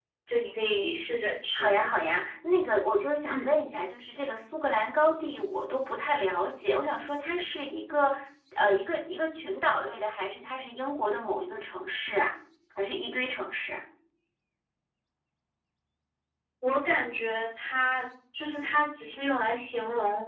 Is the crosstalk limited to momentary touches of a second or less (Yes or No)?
Yes